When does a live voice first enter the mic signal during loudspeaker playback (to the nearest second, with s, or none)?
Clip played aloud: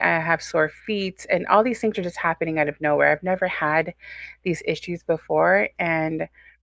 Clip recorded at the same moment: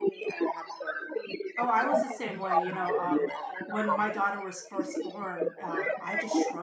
2 s